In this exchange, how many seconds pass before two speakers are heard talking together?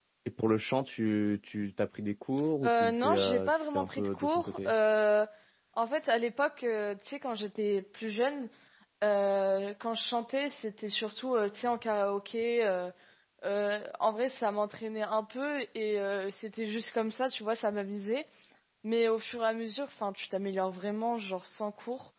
2.6 s

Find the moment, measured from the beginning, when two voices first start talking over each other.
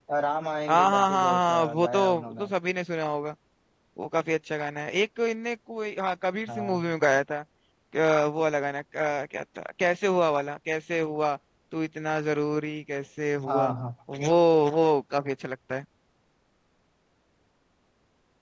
0.7 s

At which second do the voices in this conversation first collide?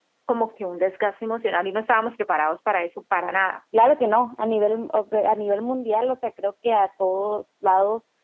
none

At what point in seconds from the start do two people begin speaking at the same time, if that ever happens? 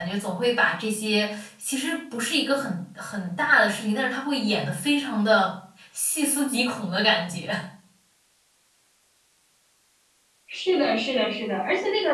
none

